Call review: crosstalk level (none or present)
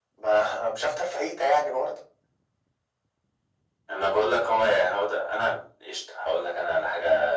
none